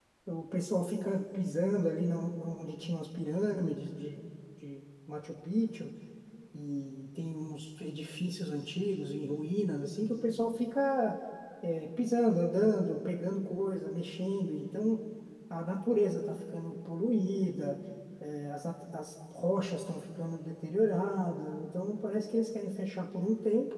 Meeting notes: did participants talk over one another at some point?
No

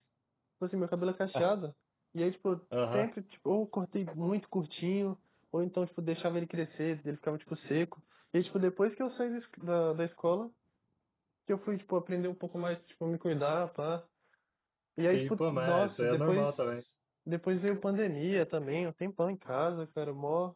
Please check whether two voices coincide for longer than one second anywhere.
Yes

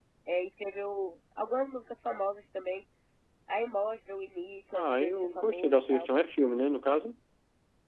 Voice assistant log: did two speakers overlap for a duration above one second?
Yes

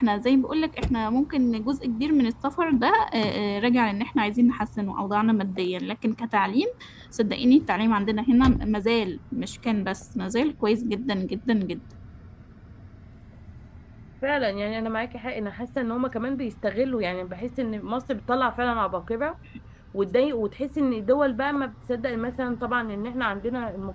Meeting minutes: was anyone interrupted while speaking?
No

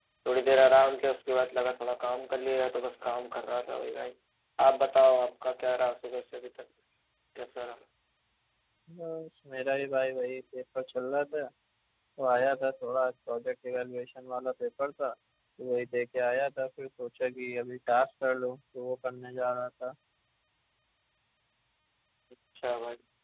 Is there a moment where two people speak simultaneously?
No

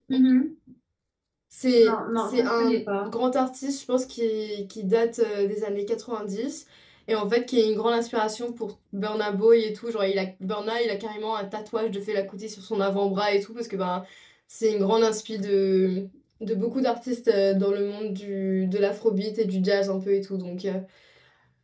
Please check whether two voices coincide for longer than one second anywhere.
Yes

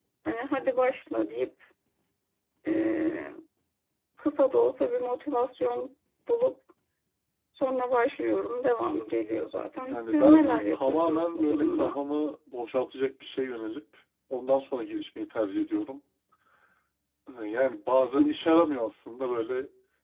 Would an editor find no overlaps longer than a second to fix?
No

